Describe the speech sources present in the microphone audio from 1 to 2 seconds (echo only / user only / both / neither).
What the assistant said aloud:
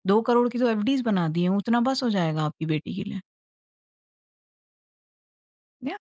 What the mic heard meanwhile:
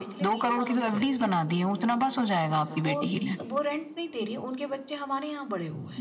both